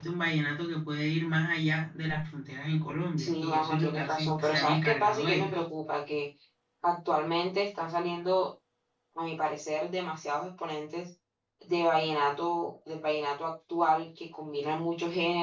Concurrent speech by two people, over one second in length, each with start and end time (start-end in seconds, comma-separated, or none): 3.2-5.6